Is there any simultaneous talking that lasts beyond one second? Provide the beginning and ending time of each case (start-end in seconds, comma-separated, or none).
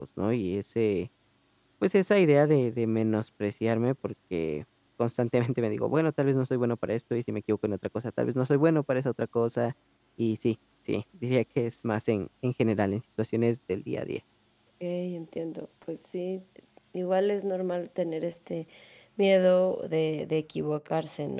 none